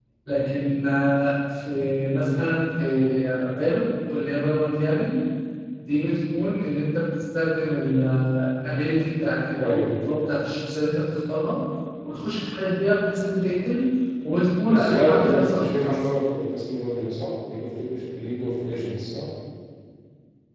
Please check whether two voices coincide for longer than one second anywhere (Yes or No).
Yes